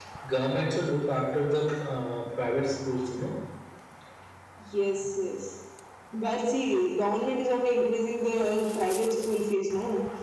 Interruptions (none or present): none